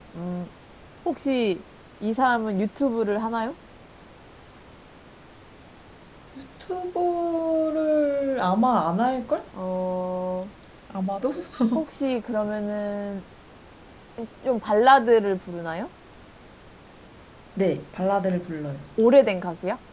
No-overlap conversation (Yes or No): Yes